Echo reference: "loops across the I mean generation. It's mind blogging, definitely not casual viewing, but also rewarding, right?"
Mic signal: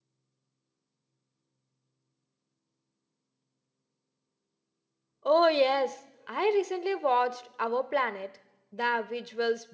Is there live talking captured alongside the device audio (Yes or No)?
Yes